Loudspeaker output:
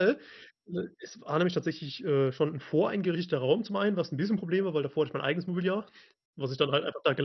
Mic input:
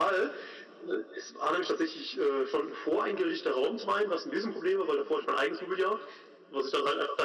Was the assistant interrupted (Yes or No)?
No